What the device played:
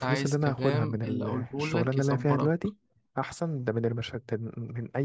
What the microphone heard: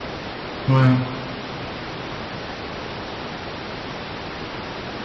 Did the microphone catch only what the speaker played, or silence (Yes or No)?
No